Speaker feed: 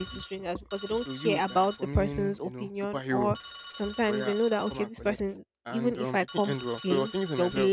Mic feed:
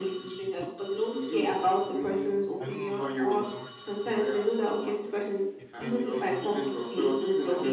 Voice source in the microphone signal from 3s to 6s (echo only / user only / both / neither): both